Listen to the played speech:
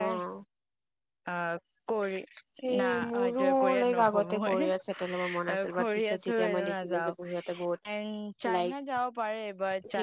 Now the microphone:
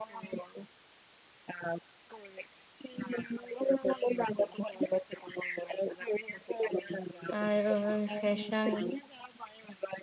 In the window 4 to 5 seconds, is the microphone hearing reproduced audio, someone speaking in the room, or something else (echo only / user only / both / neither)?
echo only